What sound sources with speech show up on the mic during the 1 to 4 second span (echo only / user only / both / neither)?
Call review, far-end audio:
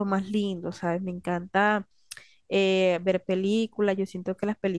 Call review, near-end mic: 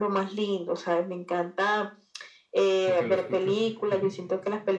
both